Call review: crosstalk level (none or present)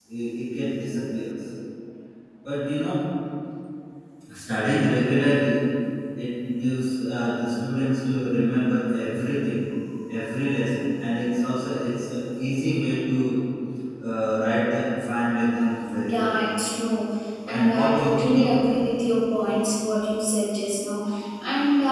present